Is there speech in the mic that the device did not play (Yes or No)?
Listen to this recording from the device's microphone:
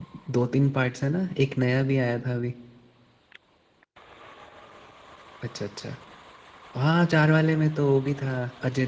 Yes